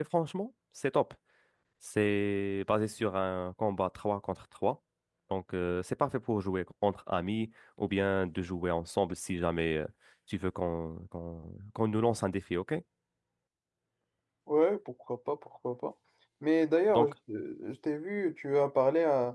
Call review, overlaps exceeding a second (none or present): none